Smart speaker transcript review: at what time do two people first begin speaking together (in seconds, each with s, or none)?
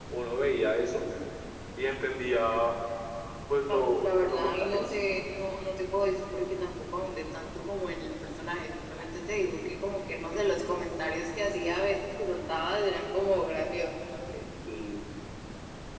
3.7 s